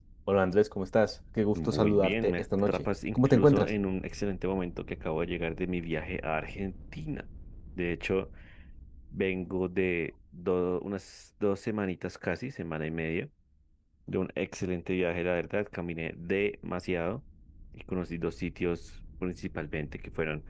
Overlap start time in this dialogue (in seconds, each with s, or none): 1.5 s